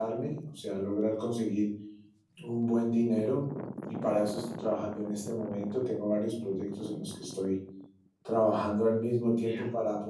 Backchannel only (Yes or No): Yes